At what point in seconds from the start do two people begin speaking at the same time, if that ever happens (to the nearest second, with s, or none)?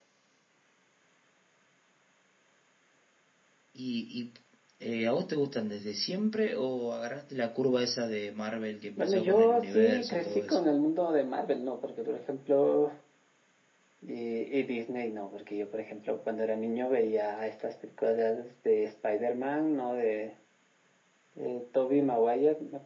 9 s